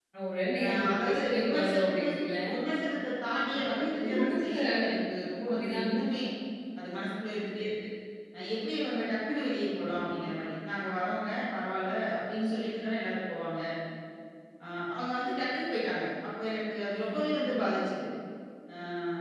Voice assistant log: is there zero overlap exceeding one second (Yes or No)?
No